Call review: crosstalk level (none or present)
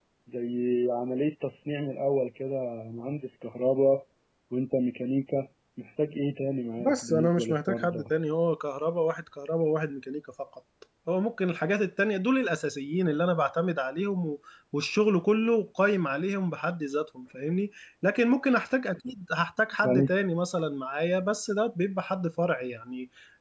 present